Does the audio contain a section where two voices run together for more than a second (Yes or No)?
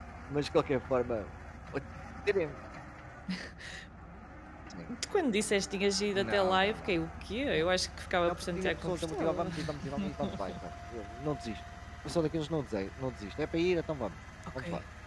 Yes